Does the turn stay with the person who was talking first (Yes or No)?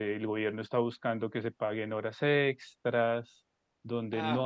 No